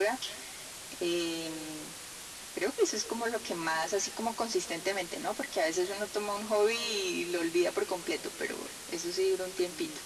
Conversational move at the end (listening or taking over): taking over